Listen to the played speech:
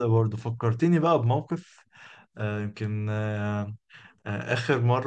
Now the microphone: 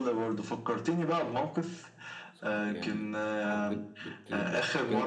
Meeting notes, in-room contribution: present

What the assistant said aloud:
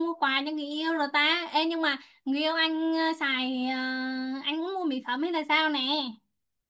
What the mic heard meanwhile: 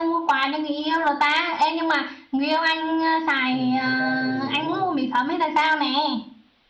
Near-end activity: present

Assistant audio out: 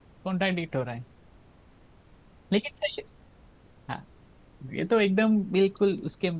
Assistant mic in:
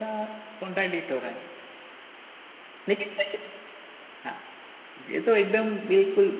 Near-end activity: none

